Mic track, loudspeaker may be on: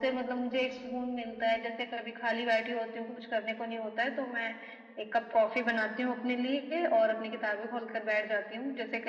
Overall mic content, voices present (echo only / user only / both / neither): echo only